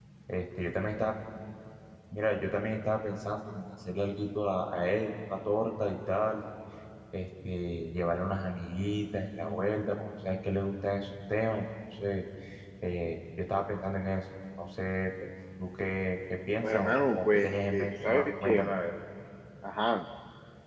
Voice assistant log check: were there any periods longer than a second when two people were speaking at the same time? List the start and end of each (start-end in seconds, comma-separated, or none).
16.6-18.6